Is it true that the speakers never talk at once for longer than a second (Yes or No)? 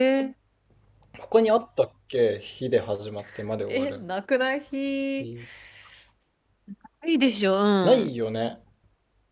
Yes